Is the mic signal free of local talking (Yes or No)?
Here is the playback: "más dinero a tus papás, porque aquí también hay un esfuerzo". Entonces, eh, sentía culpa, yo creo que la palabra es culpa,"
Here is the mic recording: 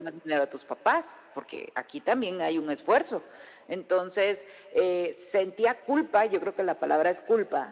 Yes